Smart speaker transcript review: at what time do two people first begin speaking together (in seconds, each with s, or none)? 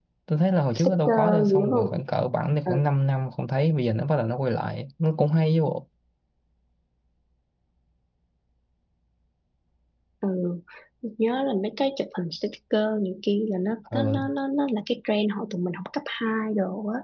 0.8 s